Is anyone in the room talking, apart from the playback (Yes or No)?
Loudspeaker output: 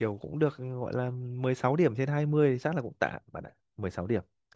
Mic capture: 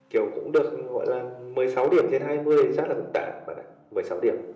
No